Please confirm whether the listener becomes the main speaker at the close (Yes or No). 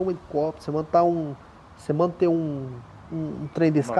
No